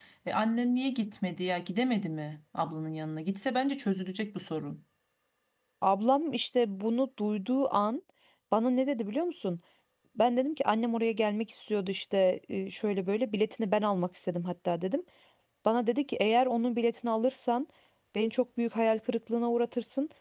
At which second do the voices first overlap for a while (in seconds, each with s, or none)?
none